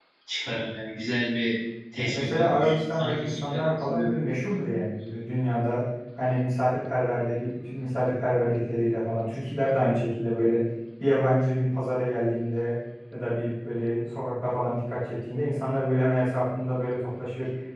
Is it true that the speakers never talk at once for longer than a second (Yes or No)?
No